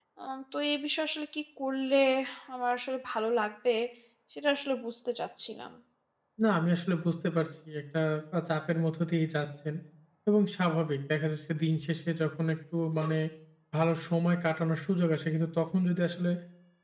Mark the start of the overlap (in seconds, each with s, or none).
none